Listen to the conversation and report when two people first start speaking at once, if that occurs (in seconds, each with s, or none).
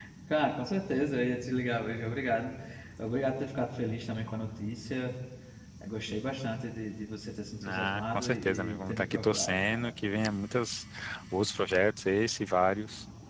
7.6 s